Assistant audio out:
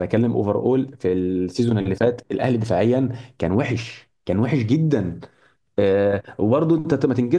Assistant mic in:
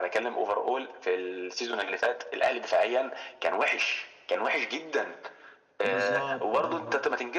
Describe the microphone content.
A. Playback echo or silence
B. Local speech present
B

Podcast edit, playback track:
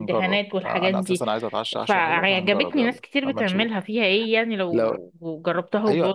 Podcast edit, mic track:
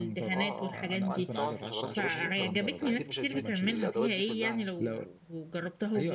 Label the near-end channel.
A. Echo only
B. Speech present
B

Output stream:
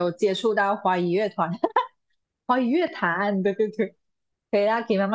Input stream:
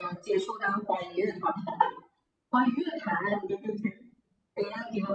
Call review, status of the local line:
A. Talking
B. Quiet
B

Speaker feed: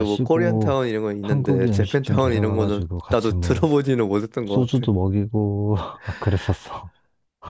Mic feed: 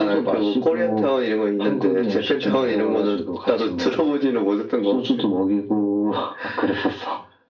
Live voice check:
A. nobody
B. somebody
A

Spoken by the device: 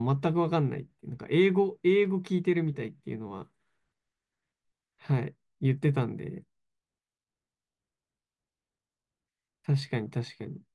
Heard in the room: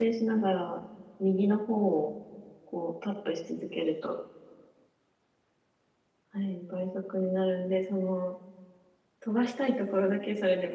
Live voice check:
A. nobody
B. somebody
B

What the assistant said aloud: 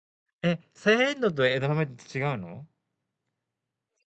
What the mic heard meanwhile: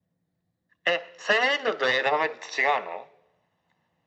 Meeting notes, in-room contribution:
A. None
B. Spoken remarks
A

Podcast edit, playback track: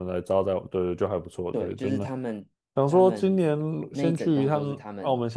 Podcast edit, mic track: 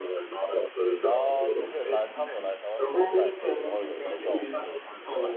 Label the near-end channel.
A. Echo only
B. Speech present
B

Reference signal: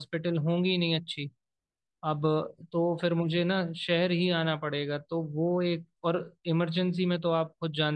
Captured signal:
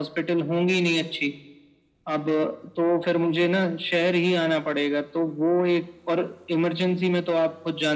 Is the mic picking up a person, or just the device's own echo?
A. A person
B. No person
B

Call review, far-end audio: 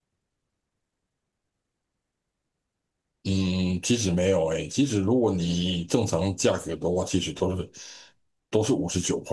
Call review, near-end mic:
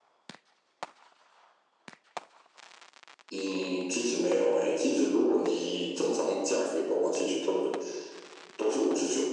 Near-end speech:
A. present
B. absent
B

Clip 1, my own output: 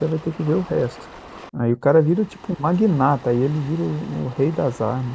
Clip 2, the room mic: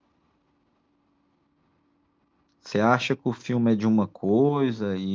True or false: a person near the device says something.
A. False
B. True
B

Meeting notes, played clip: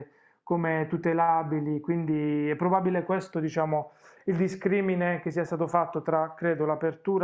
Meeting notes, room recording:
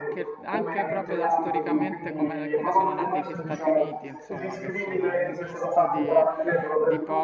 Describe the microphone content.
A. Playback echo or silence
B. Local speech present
B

